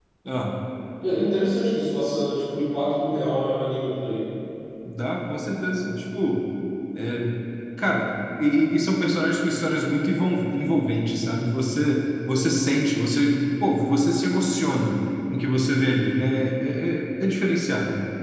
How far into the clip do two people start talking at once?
none

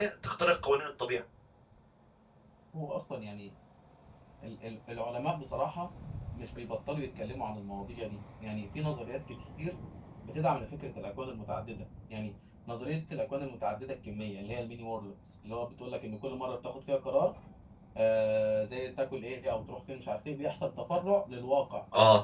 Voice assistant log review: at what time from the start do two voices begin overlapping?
none

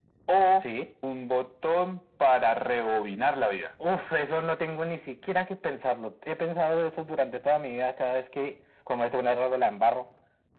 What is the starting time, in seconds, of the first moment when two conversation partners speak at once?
none

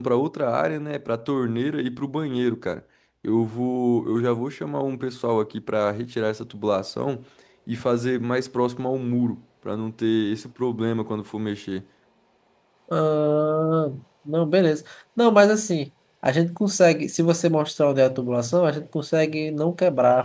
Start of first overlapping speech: none

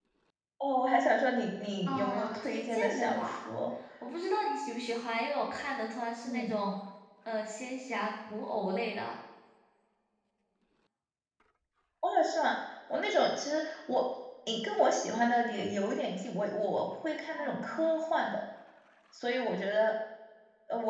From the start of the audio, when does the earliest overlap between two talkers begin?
1.9 s

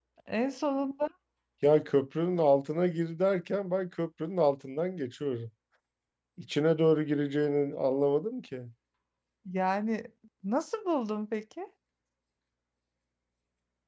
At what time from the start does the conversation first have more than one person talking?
none

